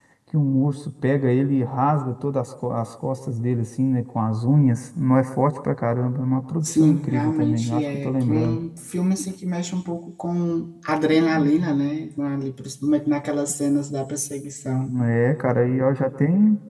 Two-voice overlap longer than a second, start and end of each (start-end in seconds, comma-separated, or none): 6.6-8.6